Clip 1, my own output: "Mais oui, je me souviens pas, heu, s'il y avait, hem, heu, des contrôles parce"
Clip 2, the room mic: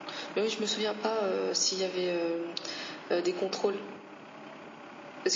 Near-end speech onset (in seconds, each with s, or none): none